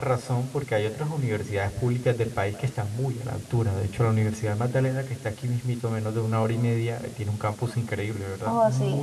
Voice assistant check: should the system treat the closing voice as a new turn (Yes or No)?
Yes